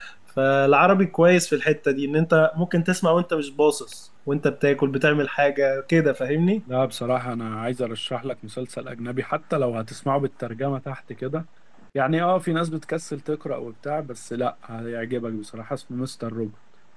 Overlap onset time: none

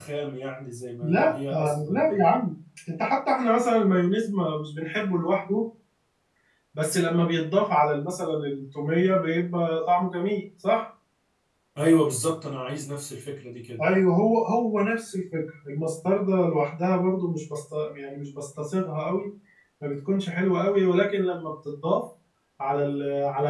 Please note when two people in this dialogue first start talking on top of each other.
1.0 s

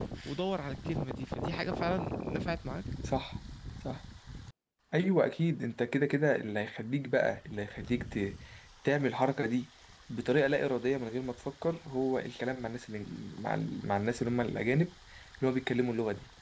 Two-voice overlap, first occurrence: none

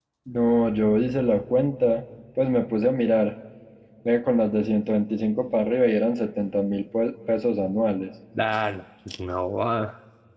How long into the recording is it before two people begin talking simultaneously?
none

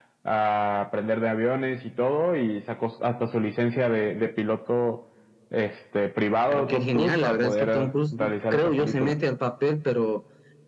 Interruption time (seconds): 6.5 s

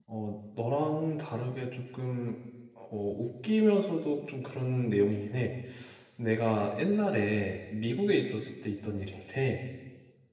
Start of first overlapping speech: none

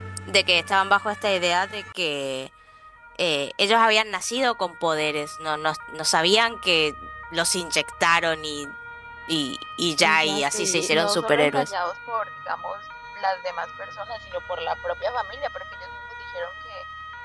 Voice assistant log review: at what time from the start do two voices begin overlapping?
10.0 s

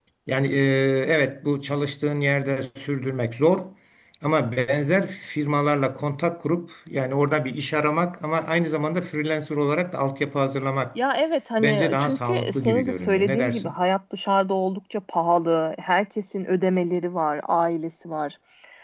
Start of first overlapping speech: 11.6 s

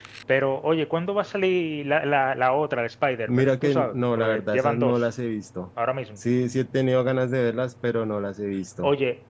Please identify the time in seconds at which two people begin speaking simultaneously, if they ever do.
3.3 s

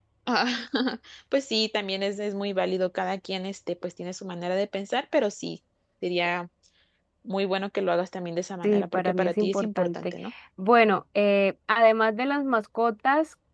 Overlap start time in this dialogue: 8.6 s

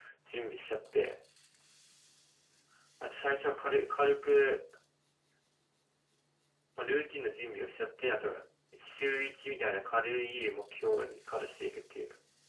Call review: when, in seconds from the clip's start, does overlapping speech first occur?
none

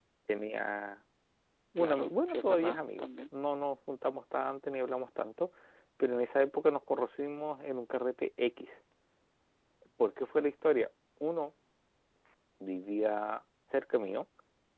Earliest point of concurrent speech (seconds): 1.8 s

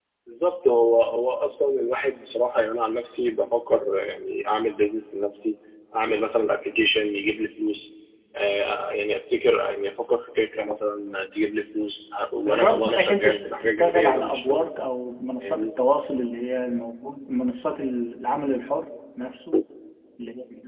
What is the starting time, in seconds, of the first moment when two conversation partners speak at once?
12.5 s

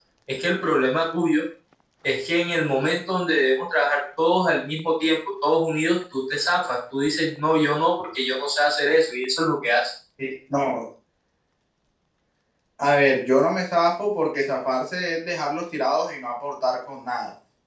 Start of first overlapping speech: none

